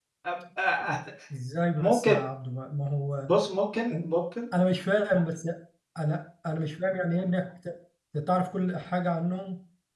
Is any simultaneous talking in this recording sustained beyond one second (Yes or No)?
No